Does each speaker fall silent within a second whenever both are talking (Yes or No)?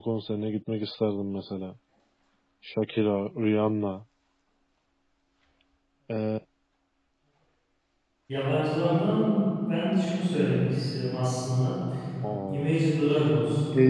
Yes